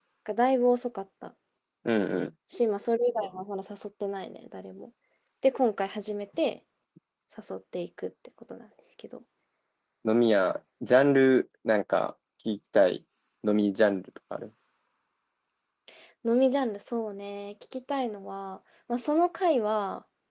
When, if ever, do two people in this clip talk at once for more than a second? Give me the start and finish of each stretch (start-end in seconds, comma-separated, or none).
none